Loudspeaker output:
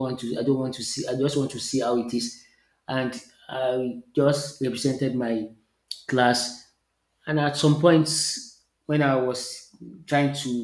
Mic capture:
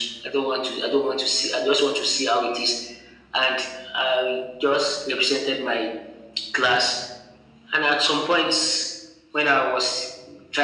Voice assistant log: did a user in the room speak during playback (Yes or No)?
No